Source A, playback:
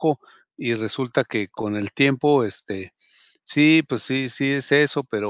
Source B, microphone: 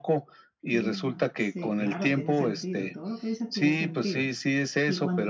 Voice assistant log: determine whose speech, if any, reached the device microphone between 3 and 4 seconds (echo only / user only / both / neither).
both